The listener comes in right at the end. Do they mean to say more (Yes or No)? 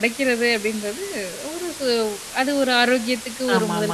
Yes